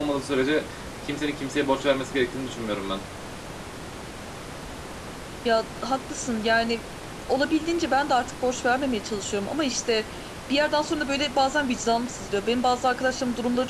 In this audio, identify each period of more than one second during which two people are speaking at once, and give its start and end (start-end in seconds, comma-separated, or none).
none